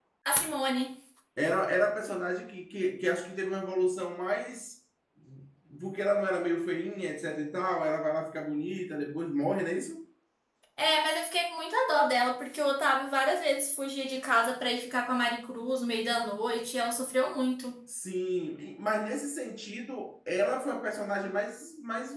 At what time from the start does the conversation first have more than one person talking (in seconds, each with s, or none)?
none